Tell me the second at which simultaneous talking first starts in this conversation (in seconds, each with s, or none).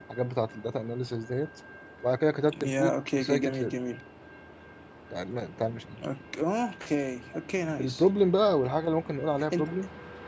2.5 s